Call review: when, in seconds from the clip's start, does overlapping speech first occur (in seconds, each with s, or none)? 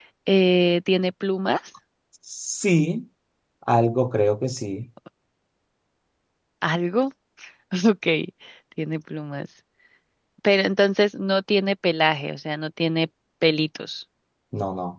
none